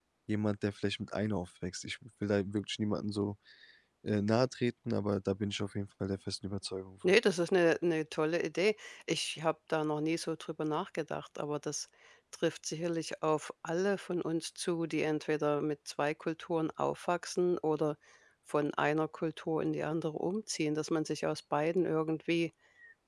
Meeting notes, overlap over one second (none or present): none